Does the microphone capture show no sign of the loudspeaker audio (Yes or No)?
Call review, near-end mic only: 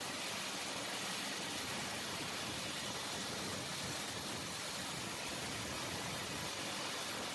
Yes